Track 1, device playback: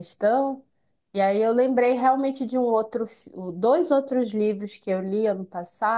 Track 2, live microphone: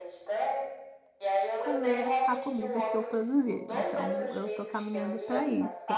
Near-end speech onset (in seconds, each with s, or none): 1.6 s